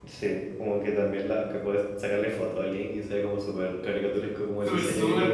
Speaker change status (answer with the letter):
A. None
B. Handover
B